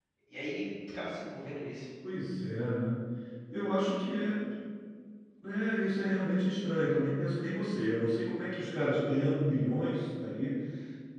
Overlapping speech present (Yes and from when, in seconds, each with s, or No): No